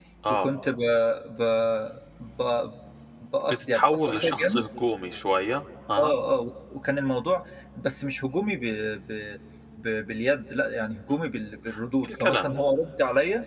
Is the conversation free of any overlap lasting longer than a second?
No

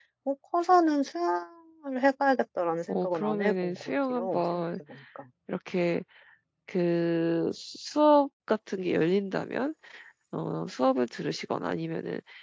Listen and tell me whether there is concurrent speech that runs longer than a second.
Yes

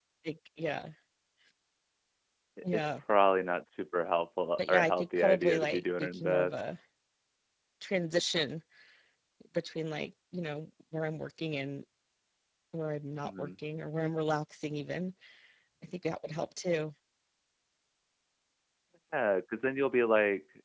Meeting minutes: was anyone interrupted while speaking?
Yes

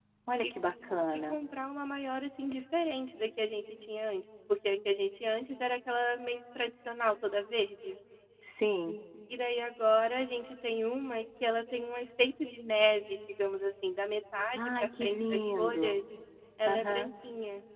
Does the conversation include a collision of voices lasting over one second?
Yes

